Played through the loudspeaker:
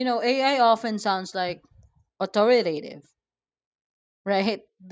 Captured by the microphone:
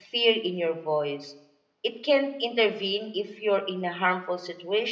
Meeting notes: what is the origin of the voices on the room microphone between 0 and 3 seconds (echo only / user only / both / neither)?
user only